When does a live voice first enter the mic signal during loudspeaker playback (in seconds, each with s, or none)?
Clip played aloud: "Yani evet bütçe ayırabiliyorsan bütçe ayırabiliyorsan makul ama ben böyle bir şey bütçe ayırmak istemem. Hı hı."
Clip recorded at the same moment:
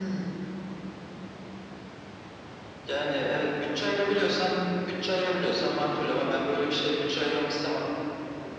none